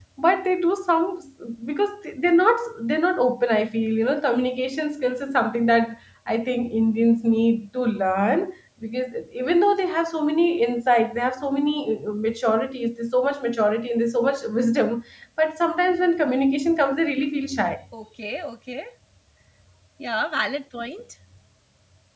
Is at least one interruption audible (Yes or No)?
No